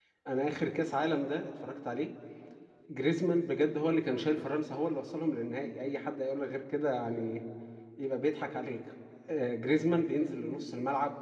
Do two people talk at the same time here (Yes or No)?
No